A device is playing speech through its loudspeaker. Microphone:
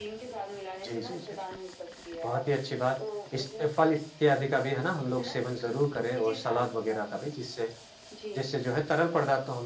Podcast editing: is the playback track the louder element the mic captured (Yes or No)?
No